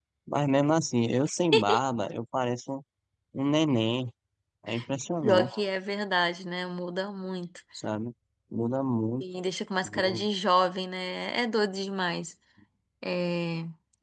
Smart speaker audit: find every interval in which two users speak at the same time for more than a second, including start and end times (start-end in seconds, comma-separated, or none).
none